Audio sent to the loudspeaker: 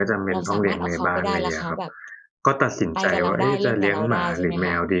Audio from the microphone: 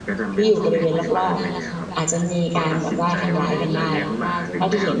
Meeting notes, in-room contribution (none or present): present